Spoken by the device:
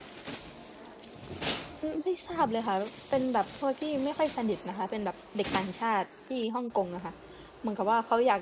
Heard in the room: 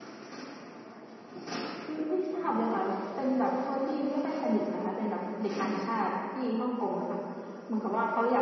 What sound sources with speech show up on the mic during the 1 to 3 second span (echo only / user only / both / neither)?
echo only